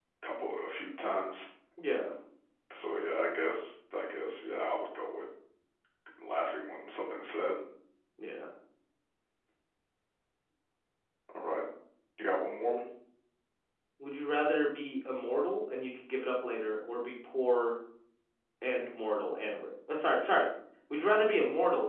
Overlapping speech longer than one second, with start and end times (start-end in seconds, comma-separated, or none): none